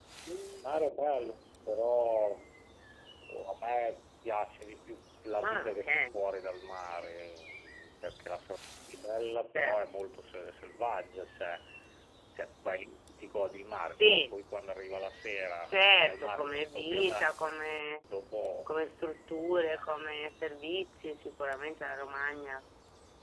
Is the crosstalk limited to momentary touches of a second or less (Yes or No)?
No